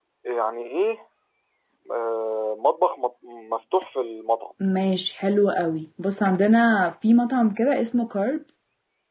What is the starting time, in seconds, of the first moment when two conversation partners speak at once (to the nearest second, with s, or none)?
none